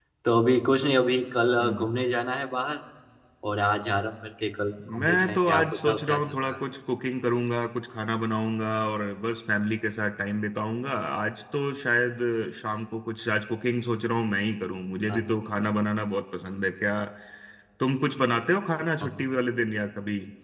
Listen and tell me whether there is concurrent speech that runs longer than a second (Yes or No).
Yes